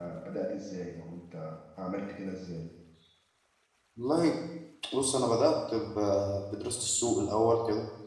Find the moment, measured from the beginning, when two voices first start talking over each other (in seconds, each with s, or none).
none